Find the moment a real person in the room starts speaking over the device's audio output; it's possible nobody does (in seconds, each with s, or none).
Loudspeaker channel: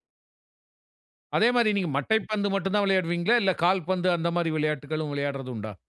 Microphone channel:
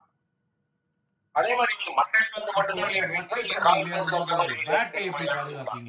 2.6 s